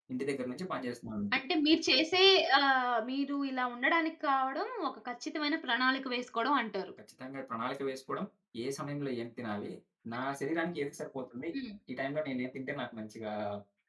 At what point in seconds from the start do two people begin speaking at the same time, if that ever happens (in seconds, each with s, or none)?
none